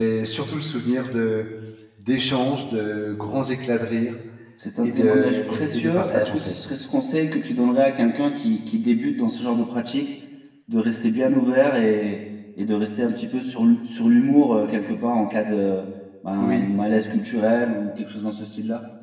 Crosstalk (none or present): present